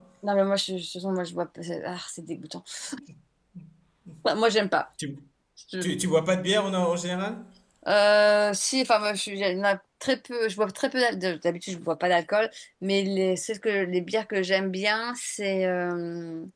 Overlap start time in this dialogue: none

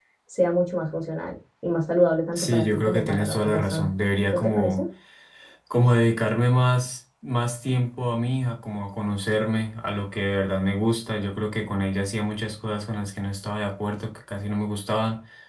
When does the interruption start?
2 s

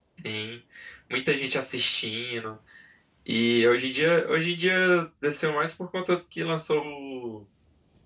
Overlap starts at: none

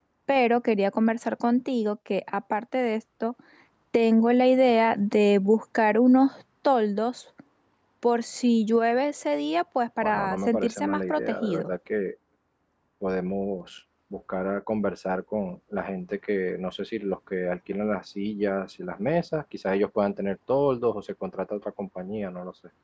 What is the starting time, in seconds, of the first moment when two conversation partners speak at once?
10 s

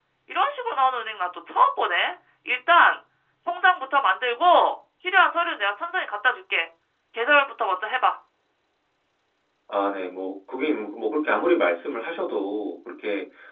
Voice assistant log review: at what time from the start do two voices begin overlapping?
none

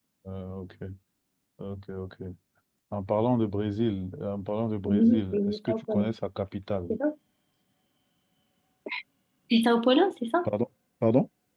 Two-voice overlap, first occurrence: 5 s

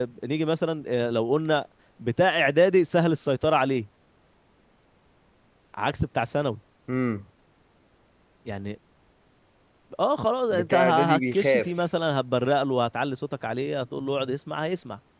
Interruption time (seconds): 11 s

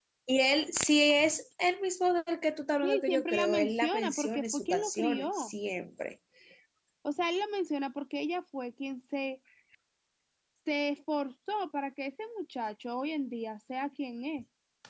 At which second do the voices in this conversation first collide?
3 s

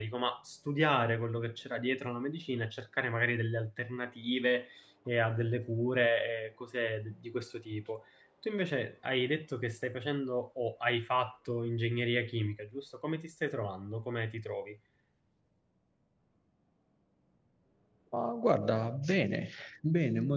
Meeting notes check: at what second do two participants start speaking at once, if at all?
none

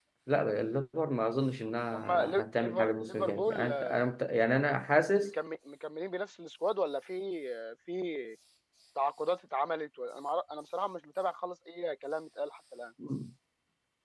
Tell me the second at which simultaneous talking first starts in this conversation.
2 s

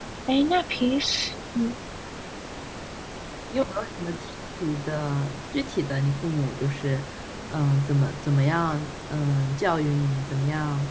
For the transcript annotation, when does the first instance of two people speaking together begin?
none

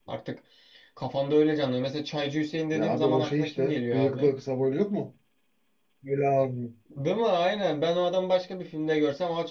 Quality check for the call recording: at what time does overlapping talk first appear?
3 s

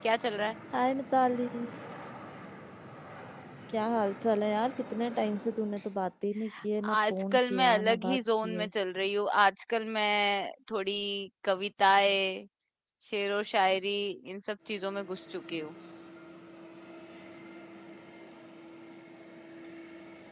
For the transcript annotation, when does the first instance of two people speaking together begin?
7 s

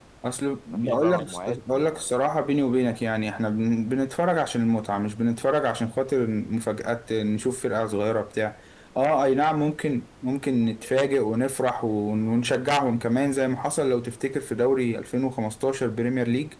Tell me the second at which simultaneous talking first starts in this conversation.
1 s

